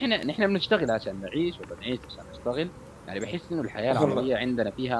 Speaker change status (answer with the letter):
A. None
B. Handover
A